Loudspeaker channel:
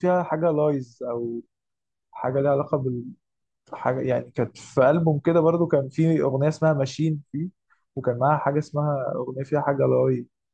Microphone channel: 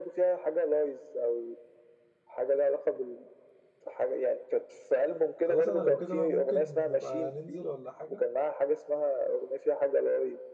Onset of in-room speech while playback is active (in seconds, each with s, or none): 5.4 s